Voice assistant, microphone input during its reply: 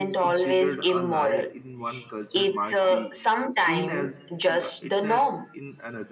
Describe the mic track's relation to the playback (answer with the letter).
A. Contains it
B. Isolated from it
A